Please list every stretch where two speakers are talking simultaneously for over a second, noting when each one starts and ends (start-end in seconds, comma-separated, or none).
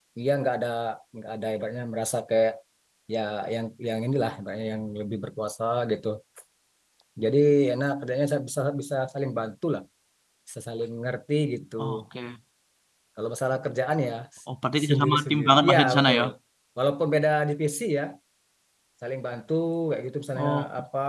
14.8-16.2